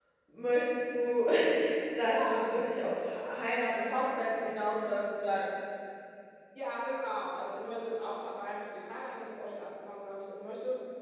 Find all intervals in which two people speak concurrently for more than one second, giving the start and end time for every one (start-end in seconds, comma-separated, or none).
none